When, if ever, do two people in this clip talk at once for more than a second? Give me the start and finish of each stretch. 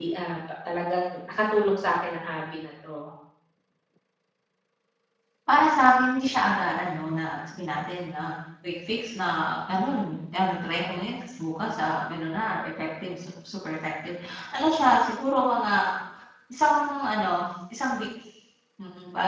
none

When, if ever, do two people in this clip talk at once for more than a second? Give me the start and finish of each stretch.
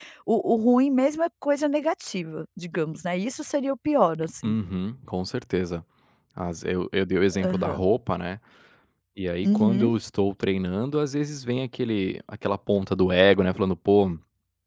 none

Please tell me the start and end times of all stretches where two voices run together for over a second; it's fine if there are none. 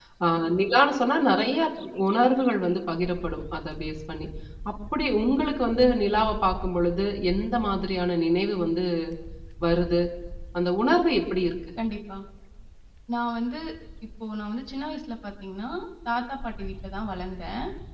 none

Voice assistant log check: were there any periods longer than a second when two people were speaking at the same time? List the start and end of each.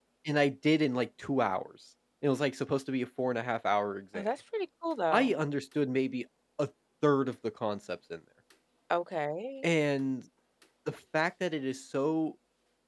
none

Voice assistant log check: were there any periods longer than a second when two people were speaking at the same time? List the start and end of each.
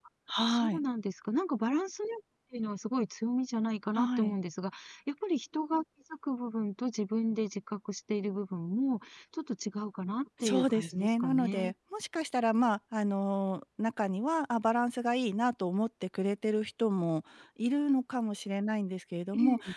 10.4-11.7

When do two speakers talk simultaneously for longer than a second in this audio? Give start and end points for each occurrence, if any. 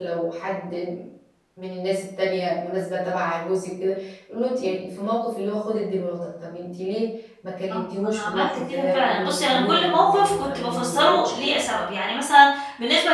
7.7-11.5

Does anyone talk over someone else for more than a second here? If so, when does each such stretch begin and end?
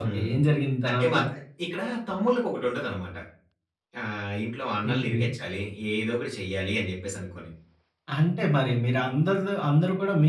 none

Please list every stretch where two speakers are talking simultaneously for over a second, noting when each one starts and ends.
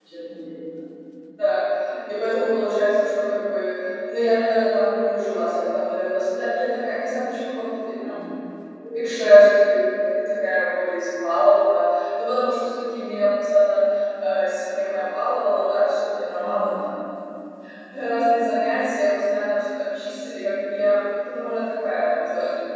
none

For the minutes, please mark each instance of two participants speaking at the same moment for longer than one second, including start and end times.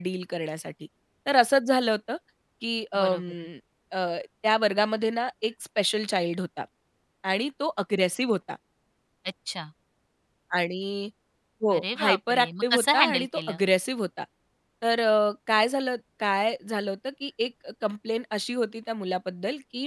11.8-13.6

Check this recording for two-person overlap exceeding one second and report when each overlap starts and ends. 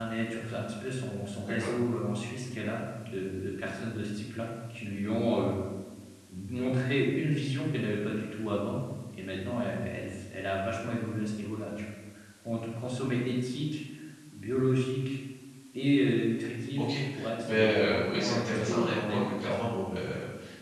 17.4-19.6

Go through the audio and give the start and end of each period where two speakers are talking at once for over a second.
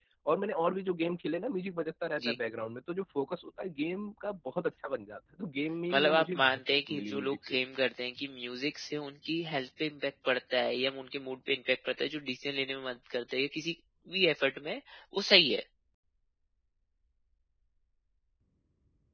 5.9-7.6

